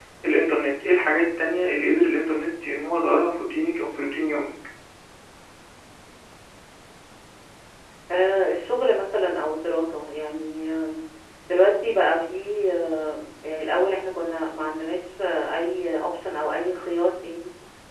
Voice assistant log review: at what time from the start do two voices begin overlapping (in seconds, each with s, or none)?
none